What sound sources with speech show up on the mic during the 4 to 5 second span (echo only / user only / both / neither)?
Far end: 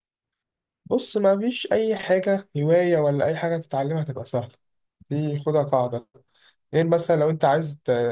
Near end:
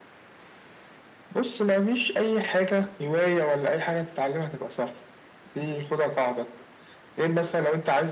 echo only